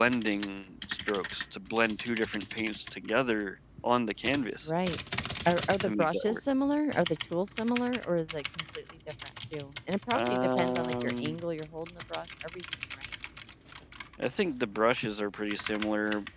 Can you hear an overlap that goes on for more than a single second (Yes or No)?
Yes